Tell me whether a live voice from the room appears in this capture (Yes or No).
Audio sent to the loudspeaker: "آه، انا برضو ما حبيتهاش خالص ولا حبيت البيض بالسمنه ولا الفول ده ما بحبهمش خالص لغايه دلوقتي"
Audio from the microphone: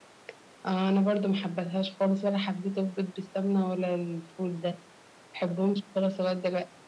No